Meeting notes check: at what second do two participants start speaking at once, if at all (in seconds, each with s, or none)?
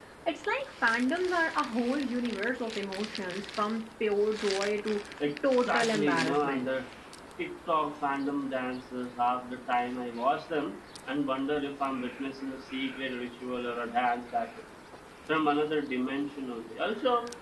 5.4 s